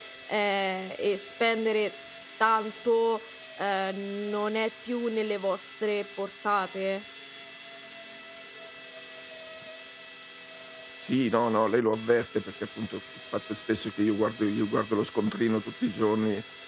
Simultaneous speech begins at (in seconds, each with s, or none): none